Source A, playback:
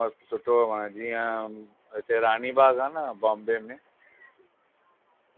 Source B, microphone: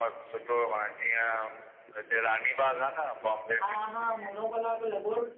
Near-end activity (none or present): present